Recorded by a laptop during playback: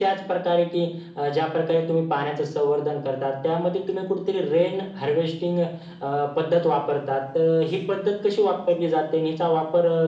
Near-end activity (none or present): none